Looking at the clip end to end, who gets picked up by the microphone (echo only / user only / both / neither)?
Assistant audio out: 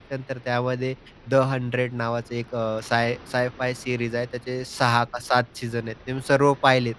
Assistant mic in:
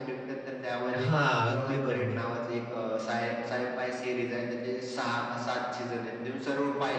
both